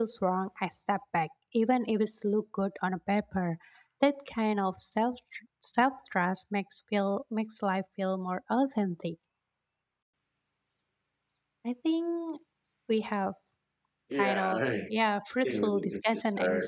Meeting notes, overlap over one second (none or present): present